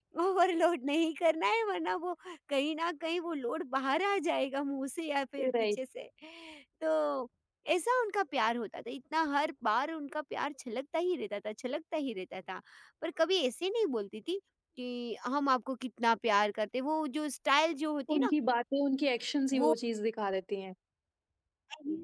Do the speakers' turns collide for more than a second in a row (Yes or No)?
No